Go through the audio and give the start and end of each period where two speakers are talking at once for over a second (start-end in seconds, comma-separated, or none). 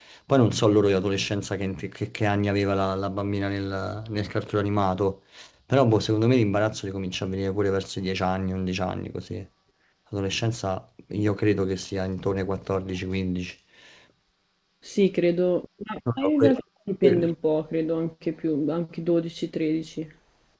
none